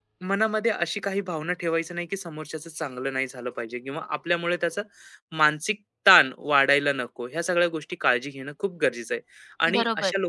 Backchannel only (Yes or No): Yes